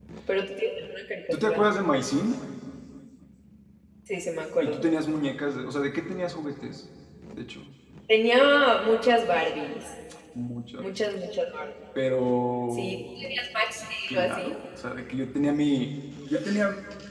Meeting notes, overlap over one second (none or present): none